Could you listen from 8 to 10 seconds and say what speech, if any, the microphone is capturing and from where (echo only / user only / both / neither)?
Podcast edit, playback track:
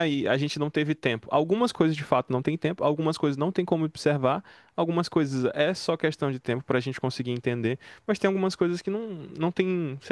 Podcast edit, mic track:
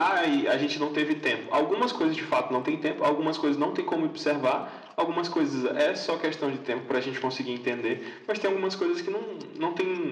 echo only